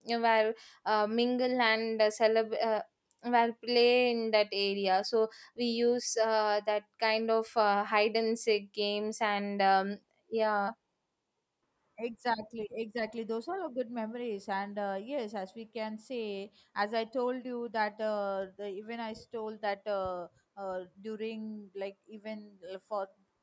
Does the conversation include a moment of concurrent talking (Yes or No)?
No